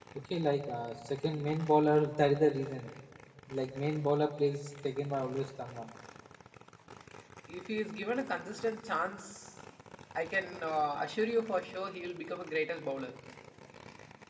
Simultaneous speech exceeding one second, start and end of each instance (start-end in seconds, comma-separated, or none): none